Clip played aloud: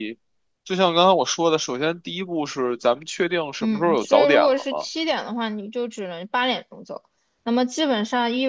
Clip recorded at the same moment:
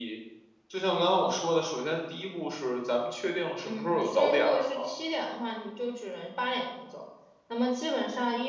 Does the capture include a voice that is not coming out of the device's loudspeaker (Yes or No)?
No